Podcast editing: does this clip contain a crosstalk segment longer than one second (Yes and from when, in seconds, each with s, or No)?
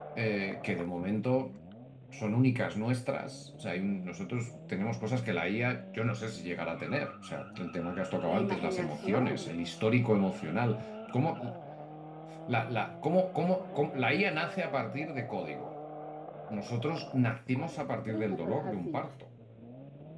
Yes, from 8.2 s